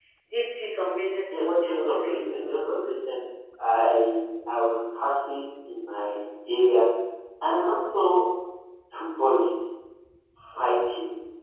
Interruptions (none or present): present